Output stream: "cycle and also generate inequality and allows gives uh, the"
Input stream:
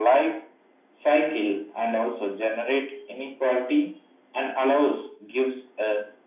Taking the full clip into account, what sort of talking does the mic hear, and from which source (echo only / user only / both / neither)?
echo only